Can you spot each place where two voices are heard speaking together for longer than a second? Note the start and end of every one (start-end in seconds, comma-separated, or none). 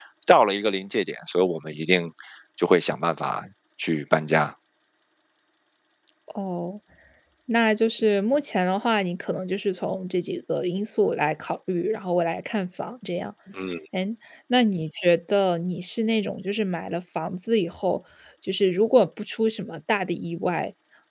none